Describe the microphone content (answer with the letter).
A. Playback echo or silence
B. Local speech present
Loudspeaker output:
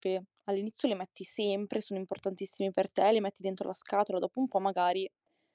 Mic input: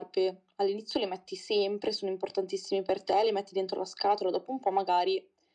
A